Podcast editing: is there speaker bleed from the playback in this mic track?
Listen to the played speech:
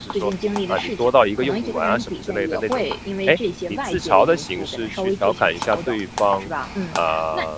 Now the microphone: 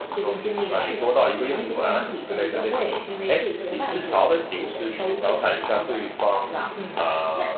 Yes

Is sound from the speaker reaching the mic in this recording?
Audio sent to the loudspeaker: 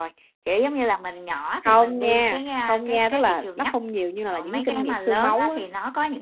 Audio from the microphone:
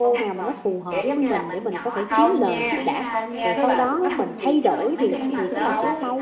Yes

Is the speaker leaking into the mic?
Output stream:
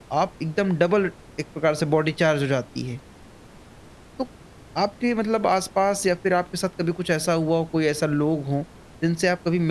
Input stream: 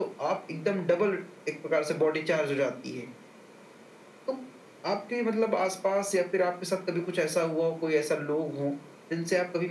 Yes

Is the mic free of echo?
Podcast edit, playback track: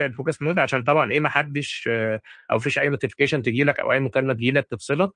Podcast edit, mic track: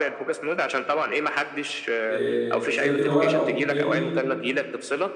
No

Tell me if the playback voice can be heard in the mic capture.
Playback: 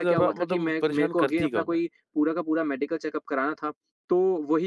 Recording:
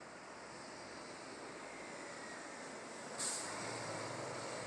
No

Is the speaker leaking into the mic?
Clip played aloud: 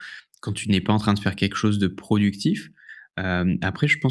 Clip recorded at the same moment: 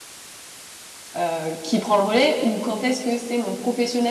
No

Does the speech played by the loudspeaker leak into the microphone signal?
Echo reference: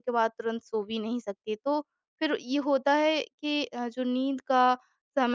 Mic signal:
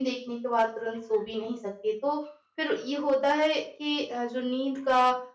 Yes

